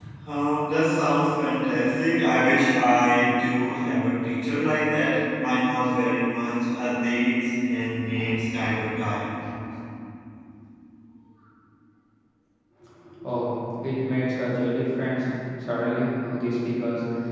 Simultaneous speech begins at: none

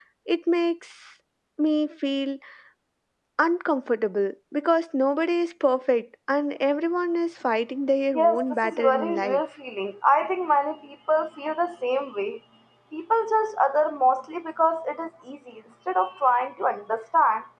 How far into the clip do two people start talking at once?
8.1 s

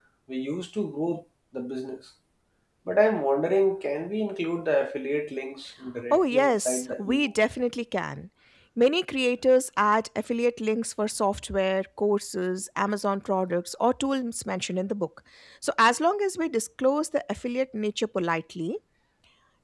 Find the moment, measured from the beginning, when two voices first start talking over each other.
6.1 s

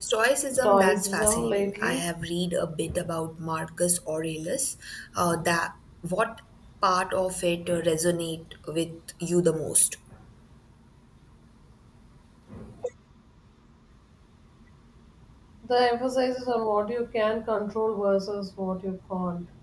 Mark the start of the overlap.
0.6 s

